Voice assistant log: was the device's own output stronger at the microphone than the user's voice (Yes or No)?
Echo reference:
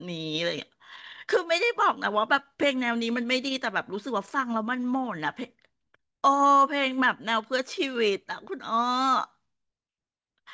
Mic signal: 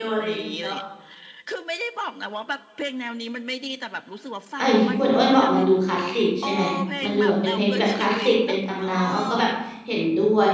No